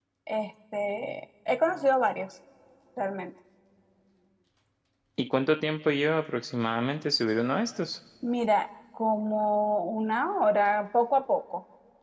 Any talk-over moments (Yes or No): No